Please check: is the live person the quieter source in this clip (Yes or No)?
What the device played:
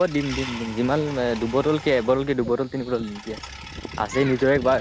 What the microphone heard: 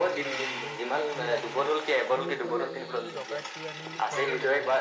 Yes